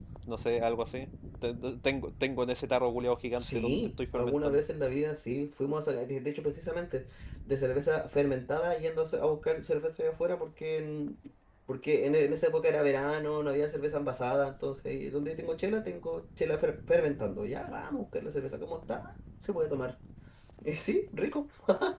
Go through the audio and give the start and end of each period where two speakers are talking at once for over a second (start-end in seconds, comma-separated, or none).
3.4-4.6